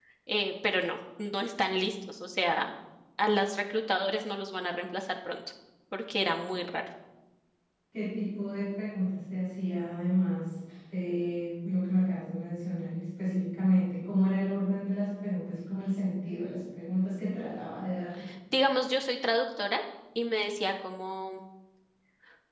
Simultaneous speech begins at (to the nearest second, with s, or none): none